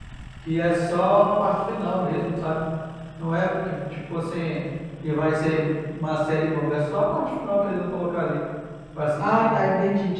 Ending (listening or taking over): taking over